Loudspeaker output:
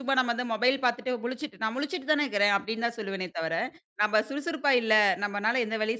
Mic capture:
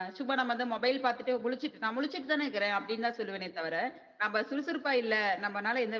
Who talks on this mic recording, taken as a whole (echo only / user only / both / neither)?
echo only